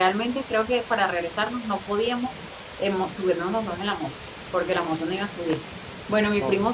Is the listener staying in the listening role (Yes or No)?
Yes